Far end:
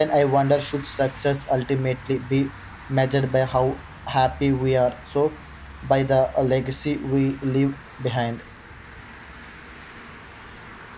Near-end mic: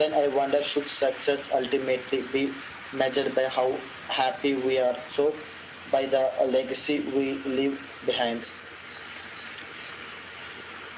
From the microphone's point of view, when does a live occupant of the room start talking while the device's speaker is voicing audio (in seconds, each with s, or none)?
none